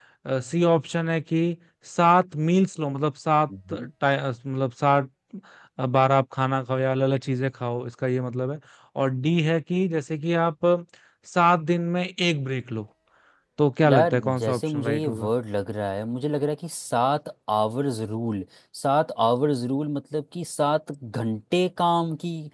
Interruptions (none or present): present